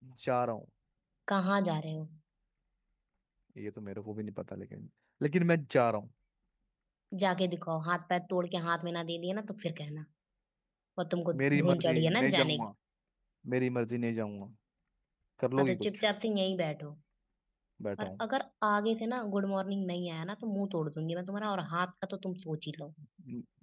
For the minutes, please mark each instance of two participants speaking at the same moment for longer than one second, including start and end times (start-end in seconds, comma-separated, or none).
11.4-12.7